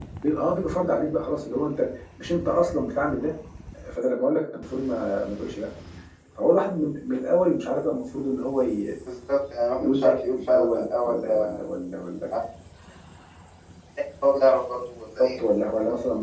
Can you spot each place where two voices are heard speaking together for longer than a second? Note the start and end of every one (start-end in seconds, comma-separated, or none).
9.8-11.6